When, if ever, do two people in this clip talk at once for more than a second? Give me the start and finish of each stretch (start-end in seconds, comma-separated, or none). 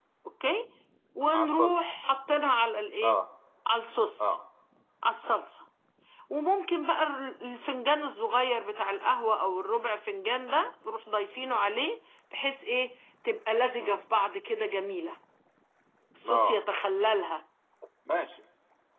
none